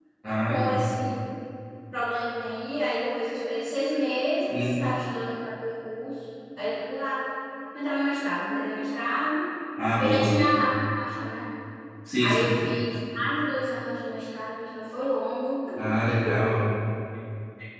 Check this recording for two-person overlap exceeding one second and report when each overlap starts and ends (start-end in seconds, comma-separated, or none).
none